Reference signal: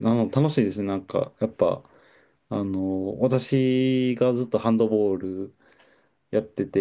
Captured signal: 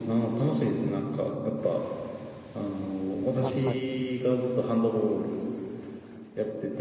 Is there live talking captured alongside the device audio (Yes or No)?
Yes